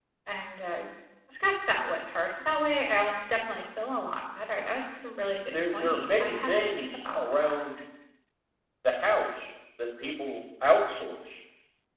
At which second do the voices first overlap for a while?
5 s

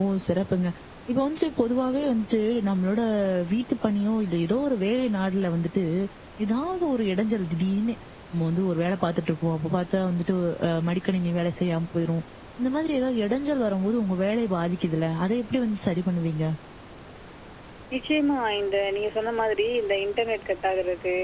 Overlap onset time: none

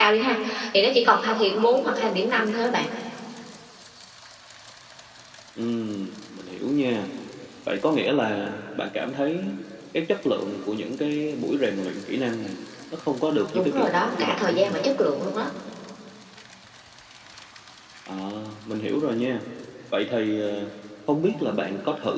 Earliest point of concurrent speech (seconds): 14 s

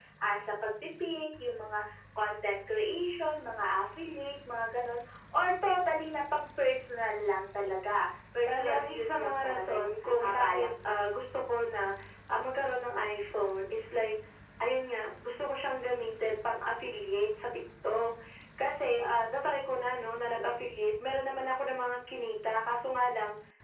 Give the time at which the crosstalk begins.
8 s

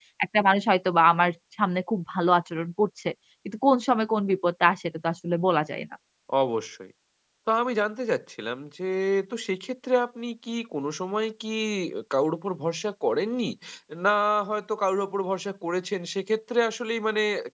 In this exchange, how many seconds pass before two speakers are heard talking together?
none

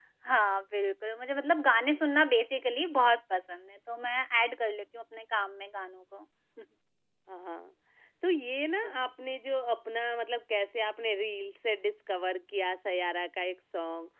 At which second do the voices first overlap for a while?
none

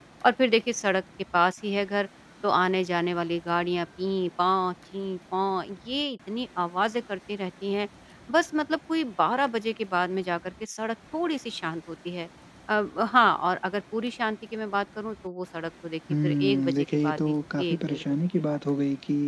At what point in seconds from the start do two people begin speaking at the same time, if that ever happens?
16 s

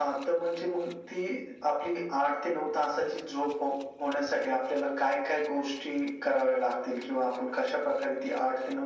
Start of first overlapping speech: none

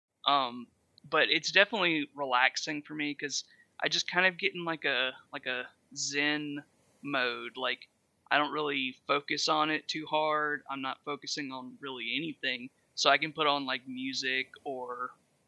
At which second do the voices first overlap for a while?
none

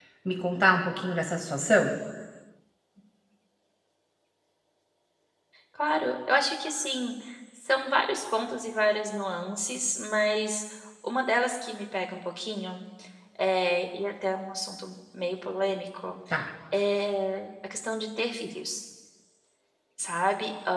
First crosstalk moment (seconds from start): none

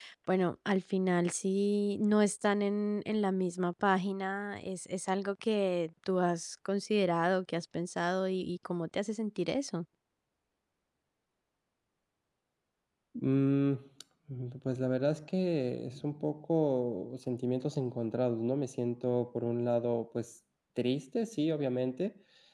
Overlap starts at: none

